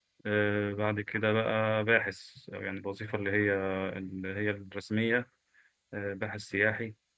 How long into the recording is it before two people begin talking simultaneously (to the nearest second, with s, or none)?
none